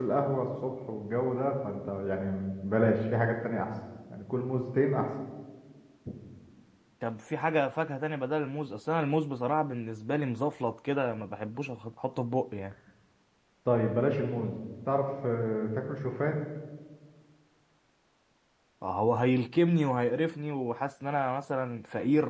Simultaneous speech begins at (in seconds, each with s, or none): none